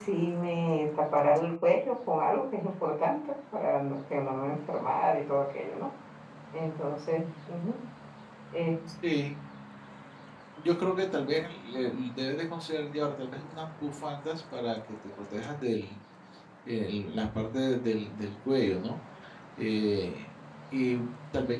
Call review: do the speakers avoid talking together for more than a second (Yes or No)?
Yes